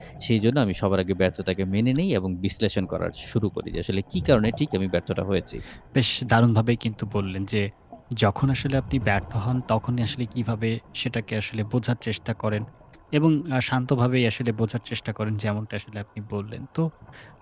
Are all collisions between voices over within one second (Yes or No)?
Yes